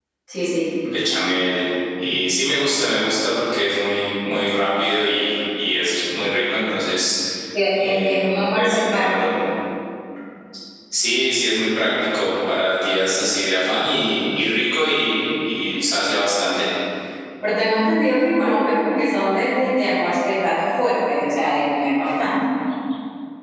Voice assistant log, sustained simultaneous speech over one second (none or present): present